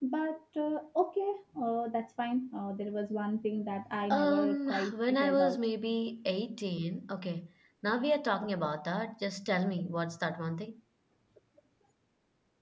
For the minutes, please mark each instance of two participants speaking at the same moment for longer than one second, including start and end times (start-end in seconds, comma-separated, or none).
4.1-5.6